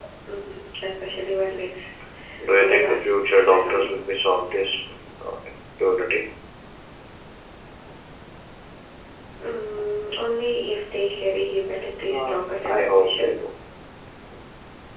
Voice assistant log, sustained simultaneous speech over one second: present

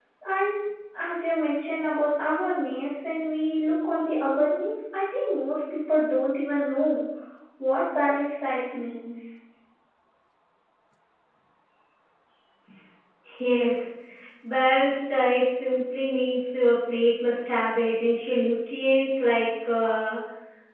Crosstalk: none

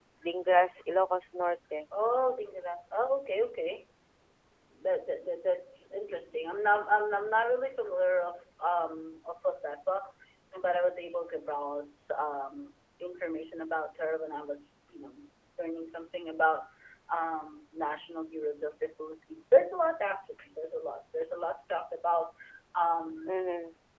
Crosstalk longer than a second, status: none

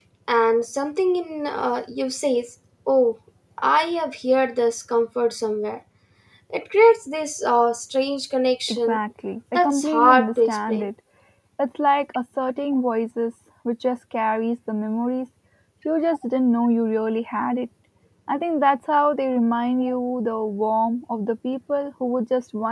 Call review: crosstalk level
present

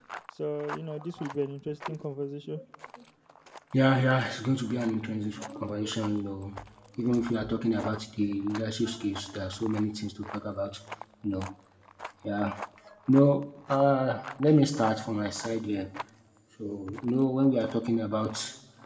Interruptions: none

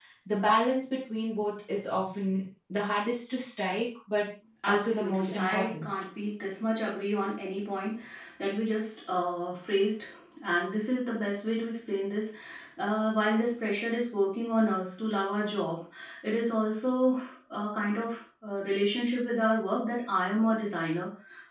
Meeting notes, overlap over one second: present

